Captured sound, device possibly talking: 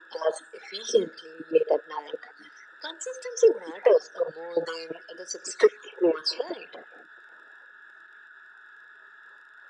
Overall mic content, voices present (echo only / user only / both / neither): echo only